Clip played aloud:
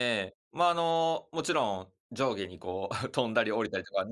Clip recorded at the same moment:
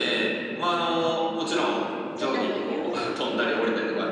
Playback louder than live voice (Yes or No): Yes